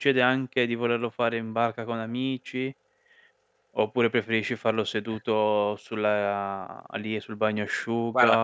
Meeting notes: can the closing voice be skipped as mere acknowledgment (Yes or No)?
Yes